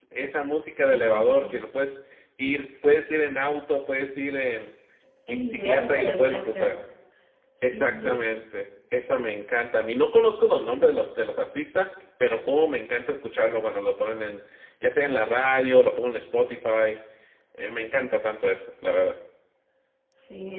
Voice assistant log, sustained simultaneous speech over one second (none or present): present